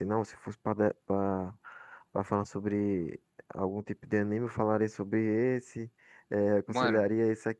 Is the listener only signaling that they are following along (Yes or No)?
Yes